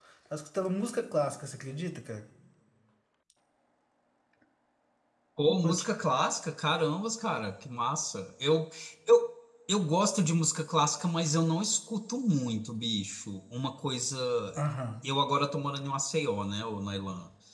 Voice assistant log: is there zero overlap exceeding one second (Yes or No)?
Yes